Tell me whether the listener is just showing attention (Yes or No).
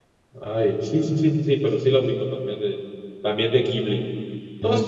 Yes